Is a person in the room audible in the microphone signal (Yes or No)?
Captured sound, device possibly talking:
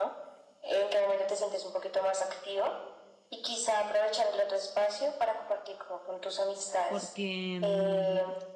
Yes